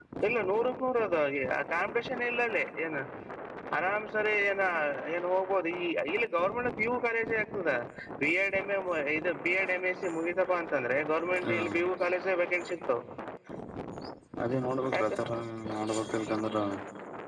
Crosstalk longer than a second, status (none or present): none